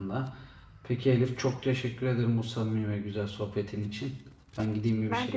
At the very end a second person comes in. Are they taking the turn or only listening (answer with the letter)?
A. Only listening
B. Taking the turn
A